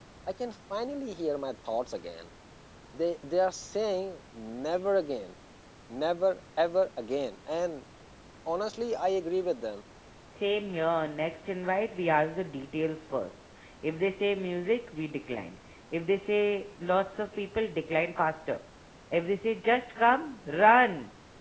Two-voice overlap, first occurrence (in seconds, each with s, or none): none